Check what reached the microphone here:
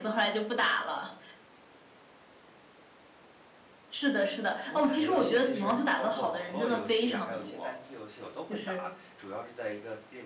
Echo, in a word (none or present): present